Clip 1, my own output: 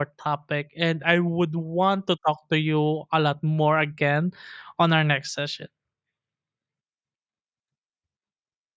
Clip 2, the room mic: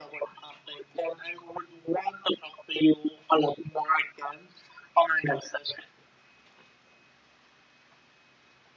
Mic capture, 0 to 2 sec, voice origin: echo only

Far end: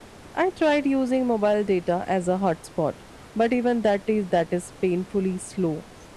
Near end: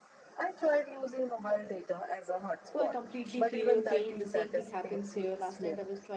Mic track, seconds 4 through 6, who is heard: both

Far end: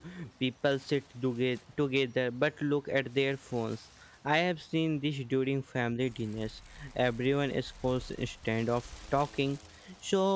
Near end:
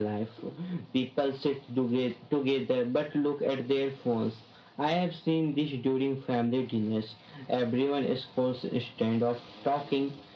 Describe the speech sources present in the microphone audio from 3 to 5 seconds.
echo only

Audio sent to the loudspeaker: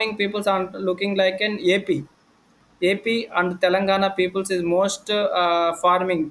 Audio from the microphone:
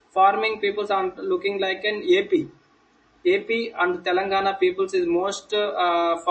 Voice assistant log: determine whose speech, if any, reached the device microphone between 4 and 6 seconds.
echo only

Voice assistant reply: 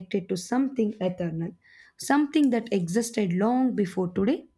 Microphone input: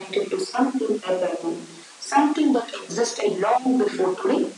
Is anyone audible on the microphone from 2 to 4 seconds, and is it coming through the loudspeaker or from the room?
echo only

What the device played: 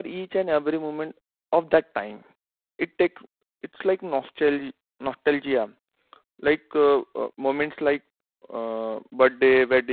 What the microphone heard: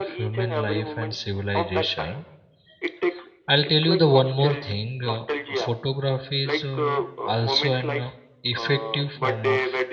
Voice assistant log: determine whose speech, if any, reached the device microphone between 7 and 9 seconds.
both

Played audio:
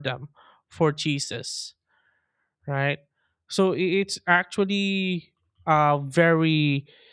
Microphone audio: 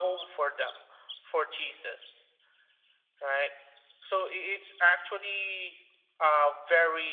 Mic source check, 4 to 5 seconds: echo only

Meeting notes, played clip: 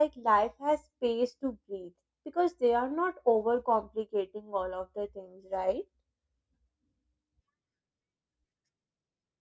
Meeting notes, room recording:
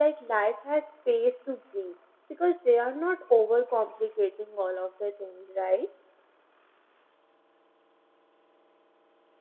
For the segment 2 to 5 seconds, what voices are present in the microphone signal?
echo only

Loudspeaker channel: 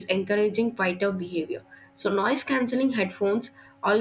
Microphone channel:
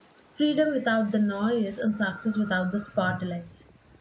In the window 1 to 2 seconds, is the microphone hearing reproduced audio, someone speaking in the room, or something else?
user only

